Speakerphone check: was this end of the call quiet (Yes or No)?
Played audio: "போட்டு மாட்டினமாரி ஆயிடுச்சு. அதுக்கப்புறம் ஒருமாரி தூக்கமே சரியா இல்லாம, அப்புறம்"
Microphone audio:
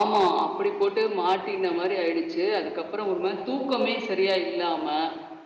Yes